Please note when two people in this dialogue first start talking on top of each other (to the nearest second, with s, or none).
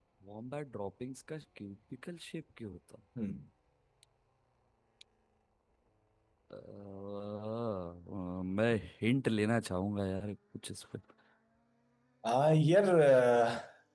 none